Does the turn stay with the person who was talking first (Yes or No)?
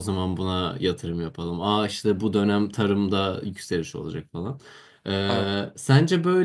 Yes